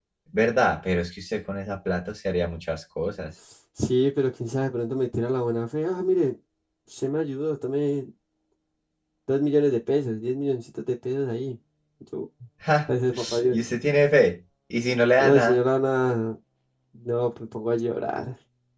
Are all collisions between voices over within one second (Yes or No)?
Yes